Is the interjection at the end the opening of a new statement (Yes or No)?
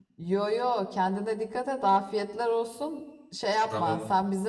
No